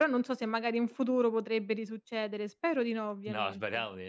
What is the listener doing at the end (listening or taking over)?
taking over